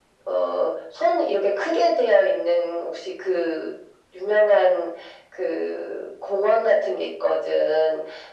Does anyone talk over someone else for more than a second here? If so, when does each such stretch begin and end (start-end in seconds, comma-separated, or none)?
none